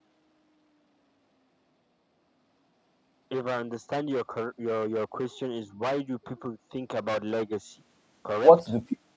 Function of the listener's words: taking over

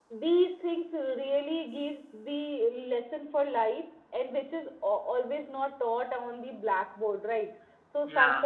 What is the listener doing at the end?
listening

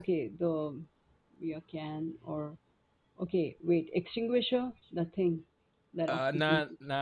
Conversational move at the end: taking over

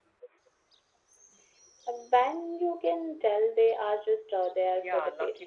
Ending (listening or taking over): taking over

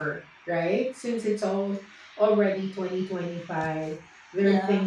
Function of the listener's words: listening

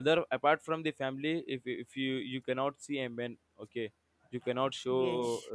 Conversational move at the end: taking over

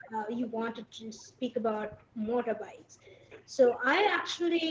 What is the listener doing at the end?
listening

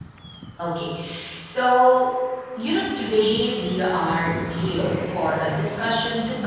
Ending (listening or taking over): listening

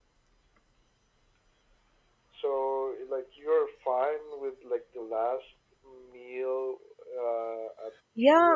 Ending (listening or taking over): taking over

